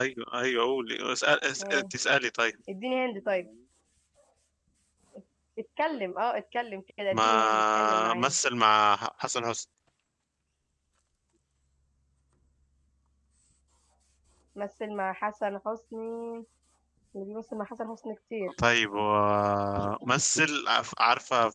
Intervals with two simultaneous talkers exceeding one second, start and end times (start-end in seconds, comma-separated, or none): 7.1-8.3